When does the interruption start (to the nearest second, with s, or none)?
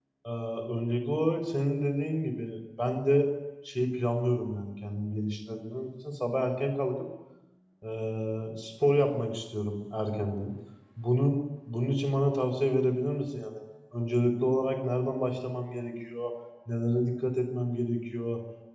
none